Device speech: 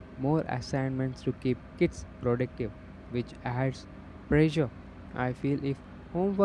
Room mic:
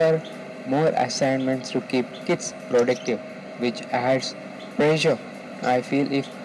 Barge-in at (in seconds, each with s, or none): none